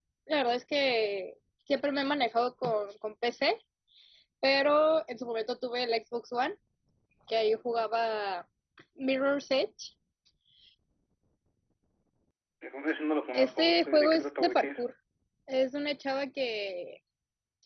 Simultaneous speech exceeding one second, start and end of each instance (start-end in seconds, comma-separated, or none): 13.3-14.8